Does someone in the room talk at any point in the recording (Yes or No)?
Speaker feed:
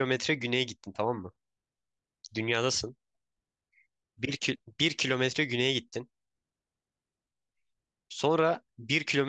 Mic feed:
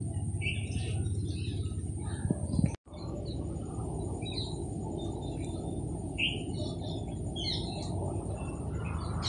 No